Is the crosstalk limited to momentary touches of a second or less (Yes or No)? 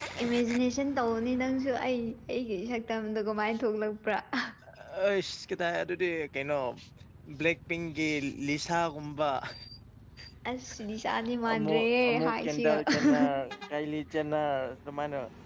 No